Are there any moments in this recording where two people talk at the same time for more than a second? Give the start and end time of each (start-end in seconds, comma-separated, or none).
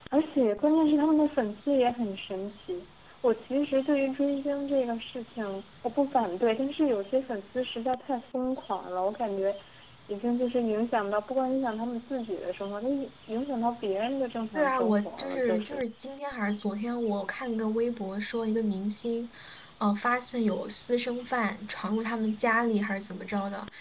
14.6-15.8